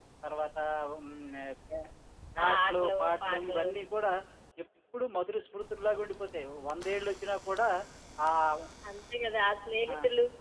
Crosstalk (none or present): present